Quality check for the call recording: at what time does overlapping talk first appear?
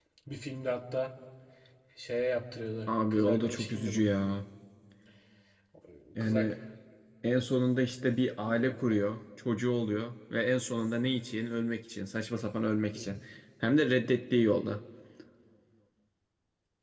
3 s

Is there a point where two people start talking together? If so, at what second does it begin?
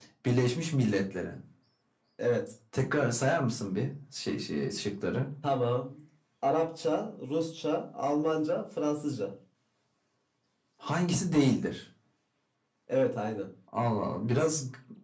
none

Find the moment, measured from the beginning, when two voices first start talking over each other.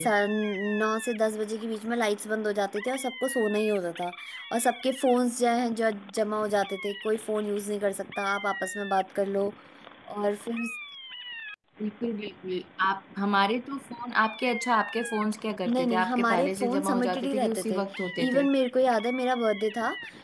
16 s

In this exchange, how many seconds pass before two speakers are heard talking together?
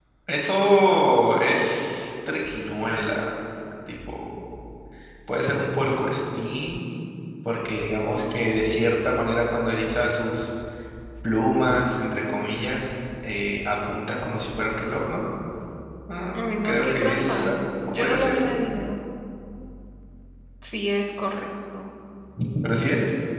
16 s

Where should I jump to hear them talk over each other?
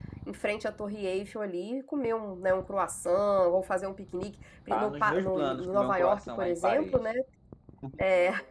5 s

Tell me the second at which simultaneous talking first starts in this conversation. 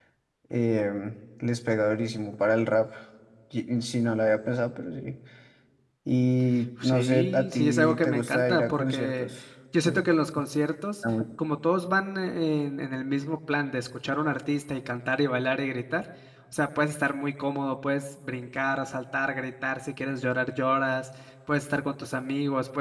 7 s

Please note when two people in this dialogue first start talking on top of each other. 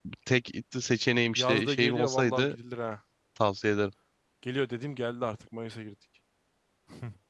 1 s

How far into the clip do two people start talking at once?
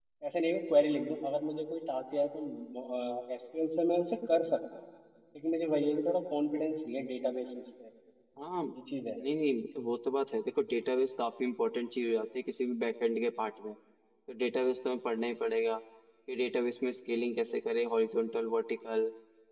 none

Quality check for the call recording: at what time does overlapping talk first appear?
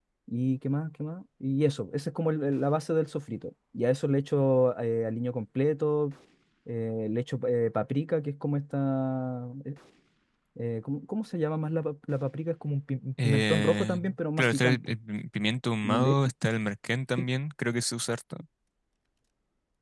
13 s

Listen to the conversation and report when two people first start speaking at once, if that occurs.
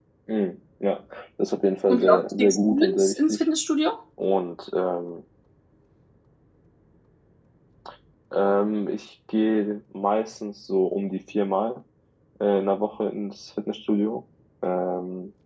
2 s

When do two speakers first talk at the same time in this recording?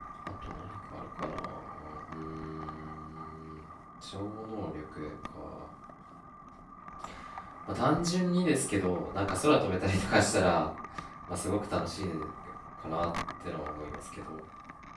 none

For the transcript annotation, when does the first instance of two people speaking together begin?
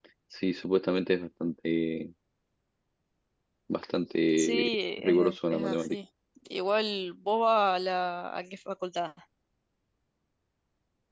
4 s

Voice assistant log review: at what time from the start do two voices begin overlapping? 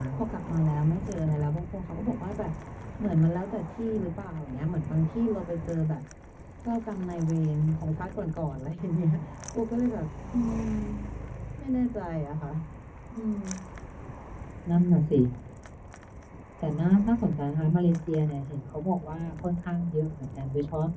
none

